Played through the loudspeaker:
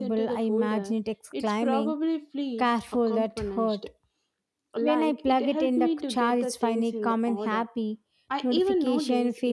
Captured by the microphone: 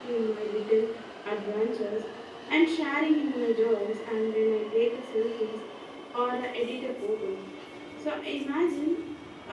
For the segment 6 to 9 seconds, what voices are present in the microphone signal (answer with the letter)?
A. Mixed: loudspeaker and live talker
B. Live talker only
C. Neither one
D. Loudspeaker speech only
B